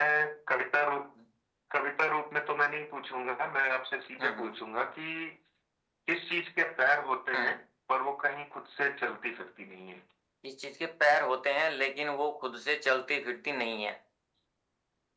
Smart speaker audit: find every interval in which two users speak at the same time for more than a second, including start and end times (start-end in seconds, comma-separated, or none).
none